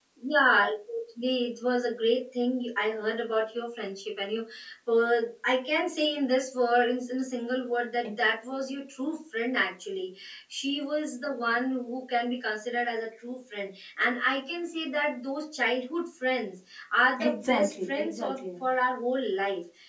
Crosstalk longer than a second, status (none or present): present